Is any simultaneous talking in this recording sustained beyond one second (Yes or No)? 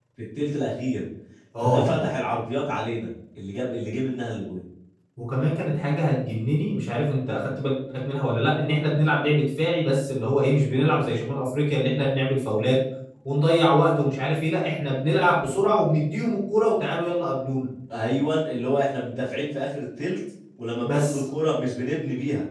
No